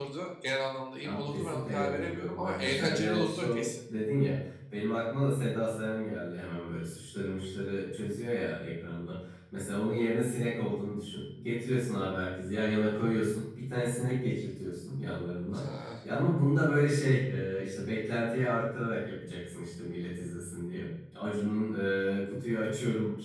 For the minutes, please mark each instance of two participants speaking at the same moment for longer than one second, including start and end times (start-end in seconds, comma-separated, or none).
1.0-3.7